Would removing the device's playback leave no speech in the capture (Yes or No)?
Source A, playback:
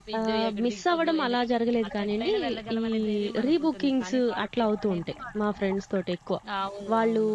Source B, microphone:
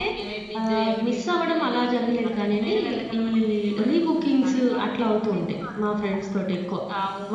Yes